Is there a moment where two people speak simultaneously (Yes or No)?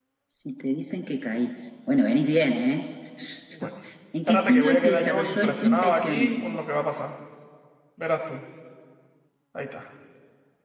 Yes